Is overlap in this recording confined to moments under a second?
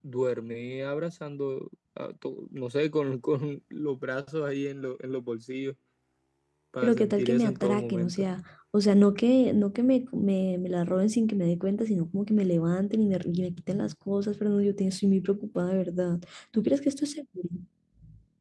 No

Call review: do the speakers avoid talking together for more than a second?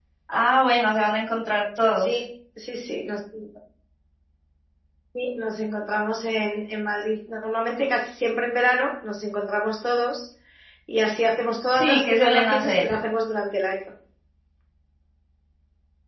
No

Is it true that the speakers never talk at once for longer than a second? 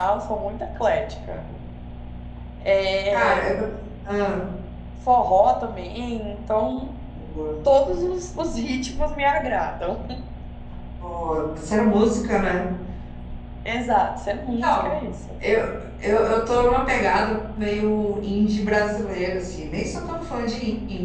Yes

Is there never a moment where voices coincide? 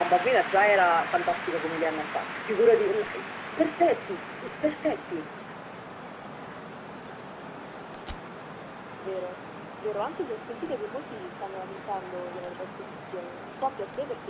Yes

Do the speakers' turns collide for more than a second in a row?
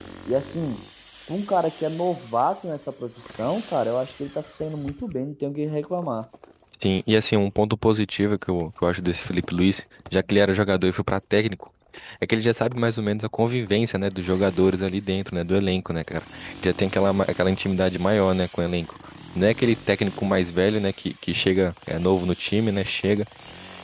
No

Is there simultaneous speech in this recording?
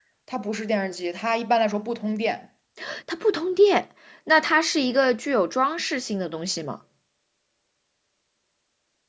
No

